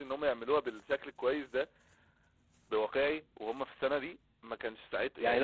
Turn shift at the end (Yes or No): Yes